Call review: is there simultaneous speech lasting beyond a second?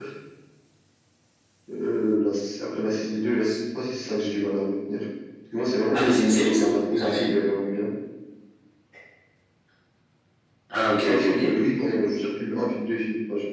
Yes, from 5.9 s

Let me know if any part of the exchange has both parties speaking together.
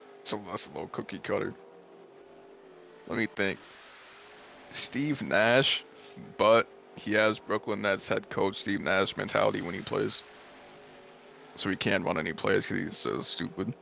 No

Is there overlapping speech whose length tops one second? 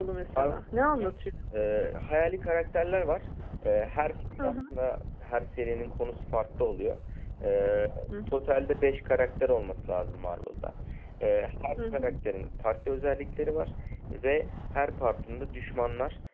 No

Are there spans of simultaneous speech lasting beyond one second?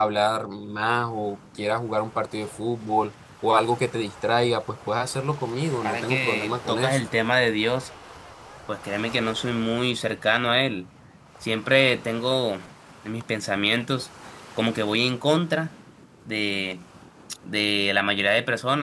Yes, from 5.8 s

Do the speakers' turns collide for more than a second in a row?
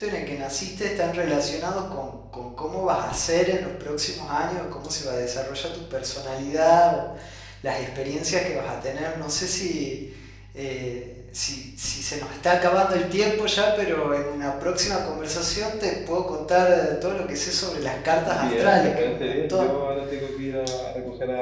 Yes, from 18.2 s

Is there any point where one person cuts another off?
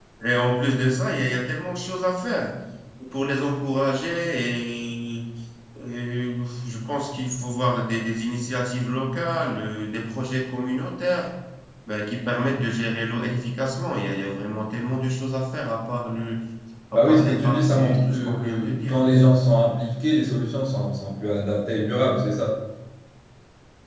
Yes, from 16.9 s

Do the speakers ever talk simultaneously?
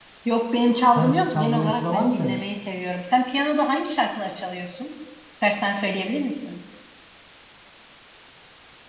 Yes, from 0.9 s

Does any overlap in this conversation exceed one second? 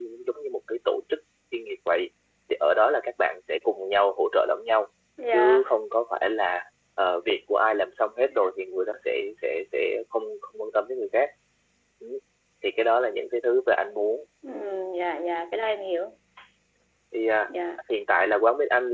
No

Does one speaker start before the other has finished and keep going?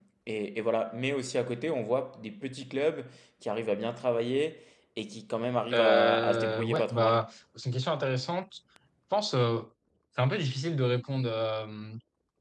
Yes, from 5.7 s

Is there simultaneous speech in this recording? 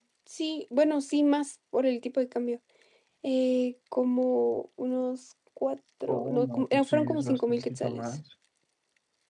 Yes, from 6.1 s

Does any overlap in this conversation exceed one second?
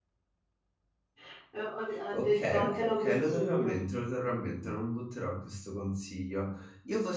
Yes, from 2.1 s

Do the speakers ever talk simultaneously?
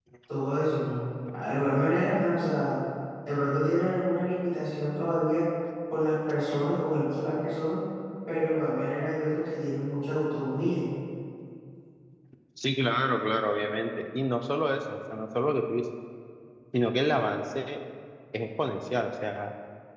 No

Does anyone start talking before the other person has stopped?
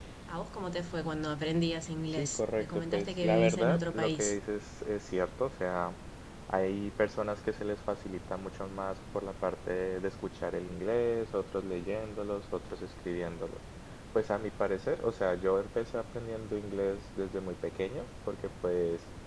Yes, from 2.2 s

